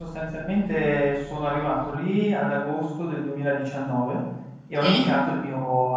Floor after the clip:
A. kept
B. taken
A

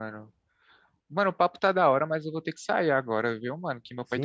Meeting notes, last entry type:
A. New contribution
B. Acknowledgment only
A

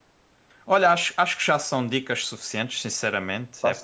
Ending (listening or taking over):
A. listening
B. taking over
A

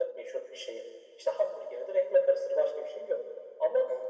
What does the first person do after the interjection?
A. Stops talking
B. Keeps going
B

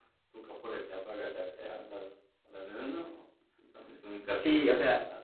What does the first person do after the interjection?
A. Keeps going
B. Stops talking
B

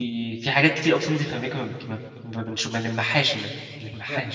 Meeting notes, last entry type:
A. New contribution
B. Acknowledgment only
A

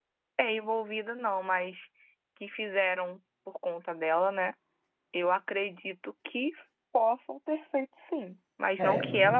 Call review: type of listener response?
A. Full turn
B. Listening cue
A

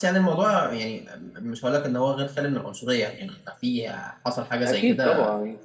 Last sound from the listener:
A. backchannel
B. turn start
B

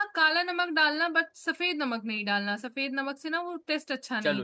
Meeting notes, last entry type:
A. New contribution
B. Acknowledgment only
A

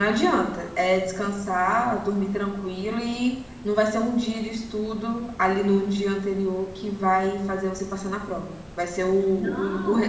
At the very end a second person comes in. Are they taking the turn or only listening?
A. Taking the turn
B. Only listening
B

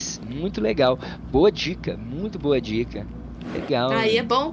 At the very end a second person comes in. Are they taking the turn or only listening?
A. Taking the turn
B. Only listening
A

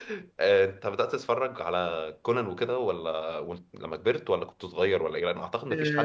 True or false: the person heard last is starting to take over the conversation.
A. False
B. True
B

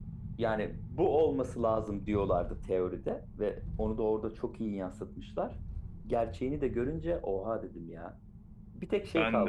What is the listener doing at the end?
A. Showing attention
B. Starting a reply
A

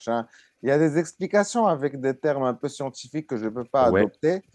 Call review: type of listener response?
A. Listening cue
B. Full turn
A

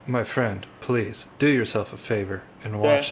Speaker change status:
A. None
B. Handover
B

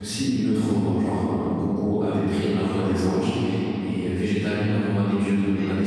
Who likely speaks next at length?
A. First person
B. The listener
A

